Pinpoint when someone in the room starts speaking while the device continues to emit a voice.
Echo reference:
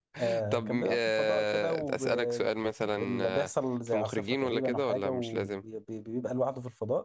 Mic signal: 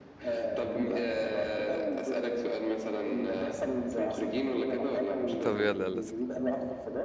5.4 s

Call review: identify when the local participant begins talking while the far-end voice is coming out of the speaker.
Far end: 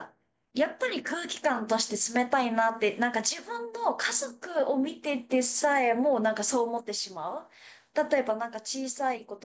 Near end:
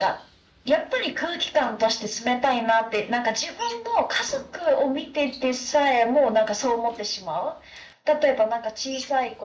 none

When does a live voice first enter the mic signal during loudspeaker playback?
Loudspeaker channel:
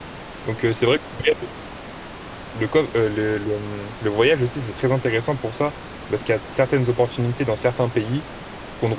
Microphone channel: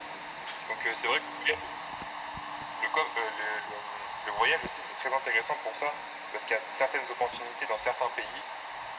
none

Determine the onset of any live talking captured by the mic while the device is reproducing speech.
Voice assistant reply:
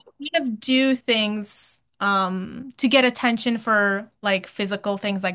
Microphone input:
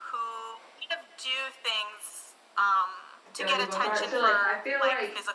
3.3 s

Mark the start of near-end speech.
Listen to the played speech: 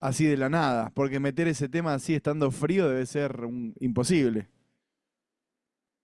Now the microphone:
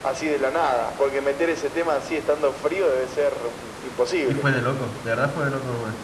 4.2 s

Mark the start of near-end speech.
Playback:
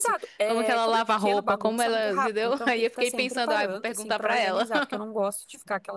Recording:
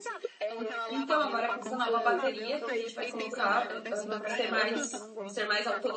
0.9 s

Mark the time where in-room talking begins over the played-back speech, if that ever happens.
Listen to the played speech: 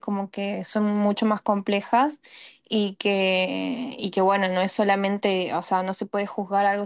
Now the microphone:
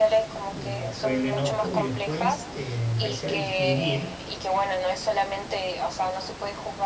0.5 s

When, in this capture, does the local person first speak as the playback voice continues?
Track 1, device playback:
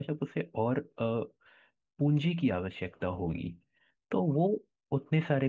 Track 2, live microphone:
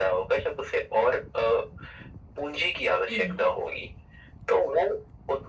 3.1 s

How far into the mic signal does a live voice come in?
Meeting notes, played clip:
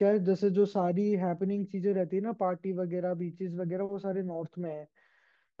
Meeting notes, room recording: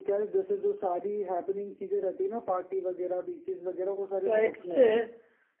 4.2 s

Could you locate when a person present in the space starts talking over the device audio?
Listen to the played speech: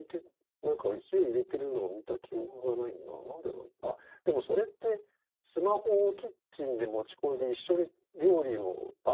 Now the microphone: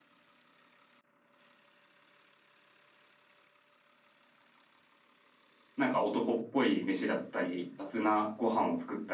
5.8 s

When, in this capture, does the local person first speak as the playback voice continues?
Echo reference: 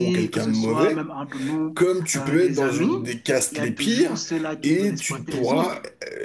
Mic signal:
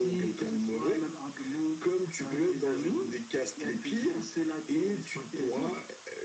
none

